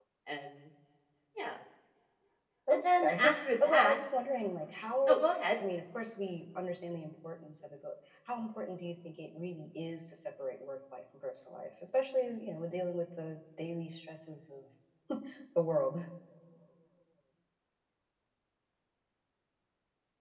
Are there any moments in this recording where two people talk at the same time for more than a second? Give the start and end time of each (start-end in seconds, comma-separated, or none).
2.7-4.0